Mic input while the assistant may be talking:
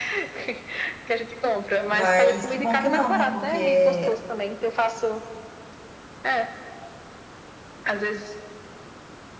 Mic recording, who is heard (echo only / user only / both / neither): both